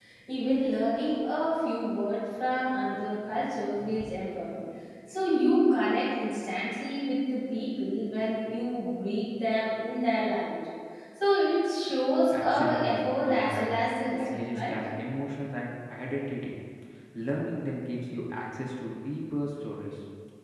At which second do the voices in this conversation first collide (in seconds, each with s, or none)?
12.3 s